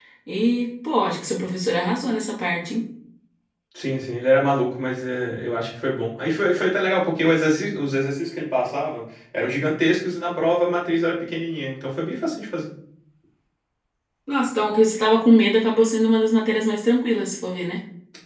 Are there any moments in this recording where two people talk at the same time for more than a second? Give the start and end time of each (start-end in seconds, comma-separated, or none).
none